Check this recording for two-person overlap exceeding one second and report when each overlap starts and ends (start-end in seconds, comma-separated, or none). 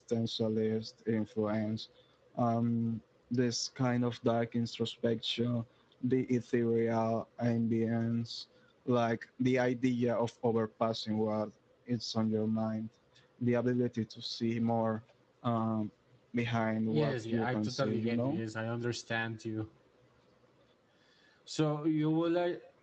16.9-18.4